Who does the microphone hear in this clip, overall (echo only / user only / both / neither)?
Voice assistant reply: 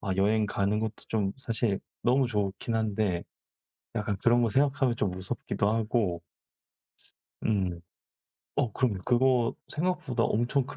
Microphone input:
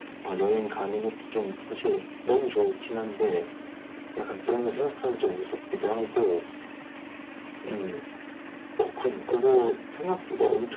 echo only